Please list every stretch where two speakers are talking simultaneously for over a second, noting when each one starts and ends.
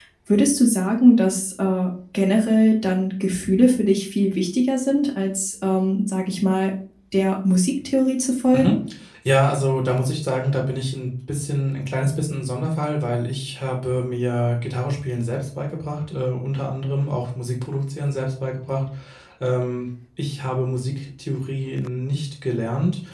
none

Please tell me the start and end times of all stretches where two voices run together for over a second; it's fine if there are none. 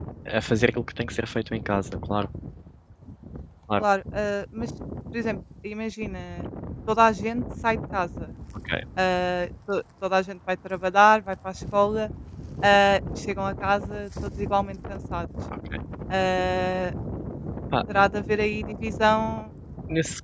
none

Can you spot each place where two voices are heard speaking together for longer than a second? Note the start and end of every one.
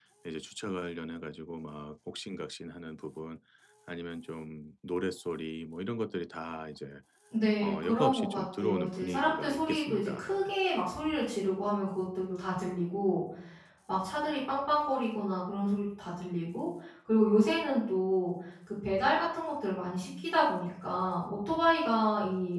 7.6-10.3

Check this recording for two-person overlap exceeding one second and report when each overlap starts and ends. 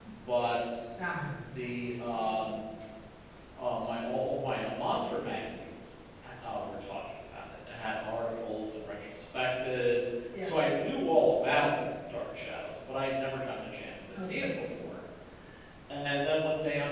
none

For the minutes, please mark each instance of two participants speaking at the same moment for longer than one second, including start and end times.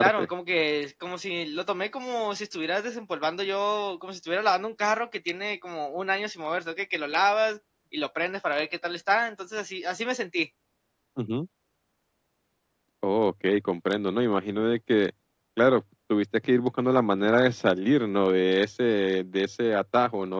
none

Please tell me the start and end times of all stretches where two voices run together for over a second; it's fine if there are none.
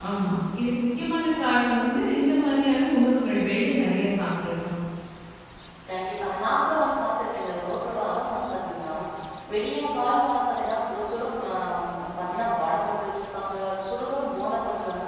none

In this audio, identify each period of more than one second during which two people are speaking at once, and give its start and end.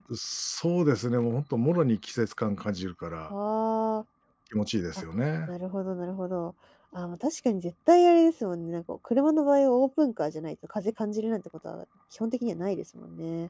none

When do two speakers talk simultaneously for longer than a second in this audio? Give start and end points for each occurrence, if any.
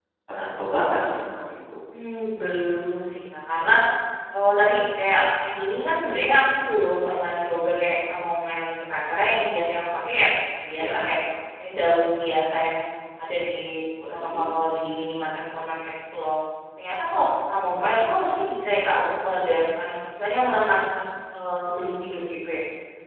none

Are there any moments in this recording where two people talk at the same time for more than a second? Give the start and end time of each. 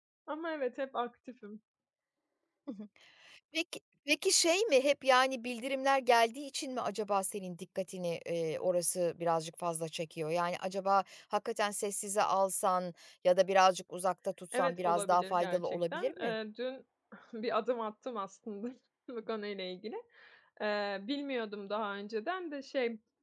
14.5-16.3

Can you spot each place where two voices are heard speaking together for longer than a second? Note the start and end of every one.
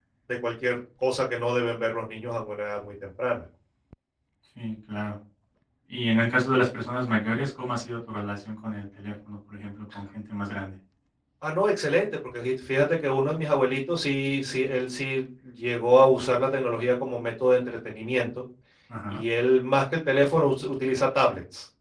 none

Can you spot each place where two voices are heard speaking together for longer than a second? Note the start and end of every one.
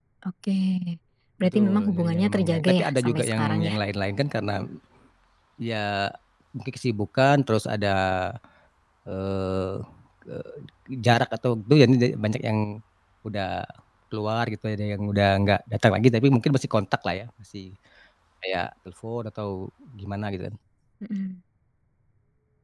1.4-3.8

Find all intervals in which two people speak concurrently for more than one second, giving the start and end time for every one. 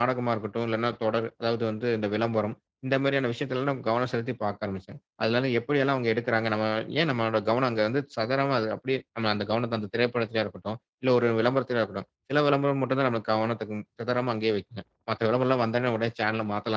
none

